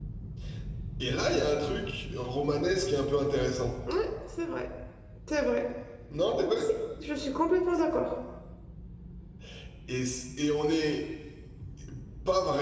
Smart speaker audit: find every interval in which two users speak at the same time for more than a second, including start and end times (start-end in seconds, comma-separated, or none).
none